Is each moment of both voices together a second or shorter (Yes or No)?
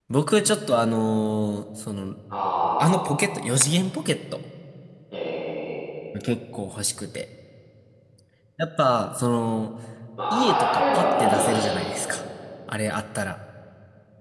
No